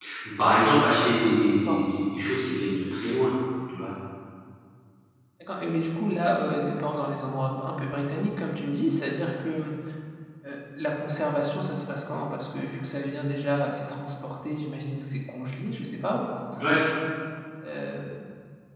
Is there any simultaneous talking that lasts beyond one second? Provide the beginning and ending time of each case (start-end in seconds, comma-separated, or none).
none